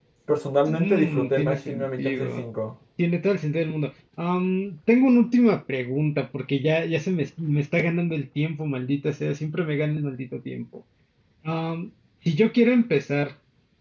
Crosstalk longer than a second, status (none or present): present